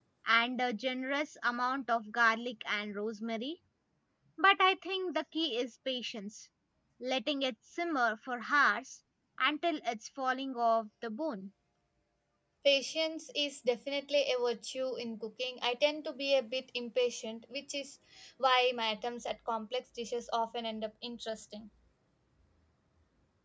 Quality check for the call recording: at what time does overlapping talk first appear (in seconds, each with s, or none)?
none